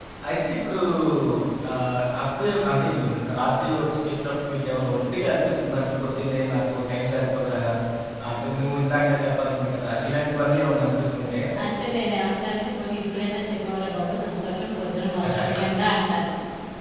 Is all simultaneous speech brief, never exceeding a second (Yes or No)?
Yes